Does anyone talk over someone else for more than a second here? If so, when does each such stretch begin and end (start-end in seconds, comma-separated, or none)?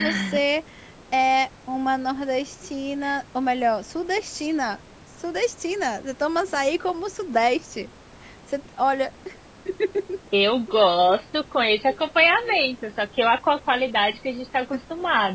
none